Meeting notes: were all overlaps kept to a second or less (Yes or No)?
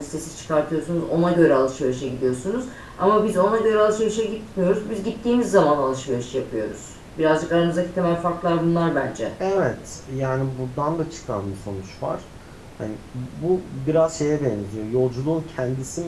Yes